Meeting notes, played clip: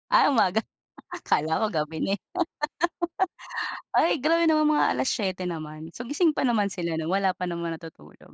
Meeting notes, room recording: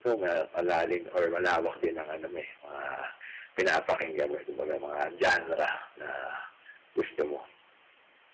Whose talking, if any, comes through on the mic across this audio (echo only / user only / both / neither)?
user only